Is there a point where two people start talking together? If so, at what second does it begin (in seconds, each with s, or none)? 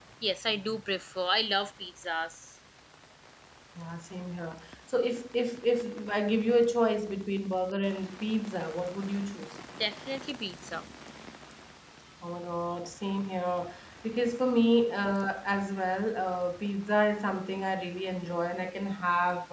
none